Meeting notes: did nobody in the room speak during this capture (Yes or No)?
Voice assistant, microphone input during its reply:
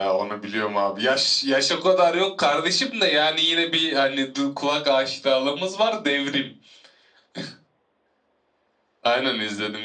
Yes